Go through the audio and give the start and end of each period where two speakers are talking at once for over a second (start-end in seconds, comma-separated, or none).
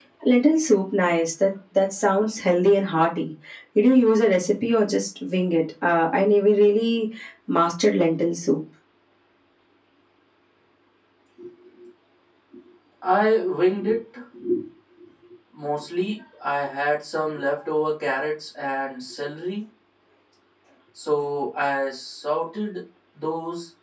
none